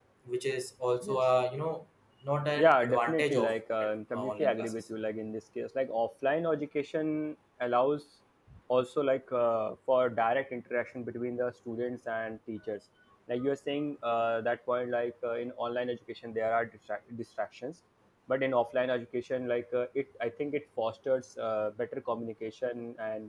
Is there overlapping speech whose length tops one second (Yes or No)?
Yes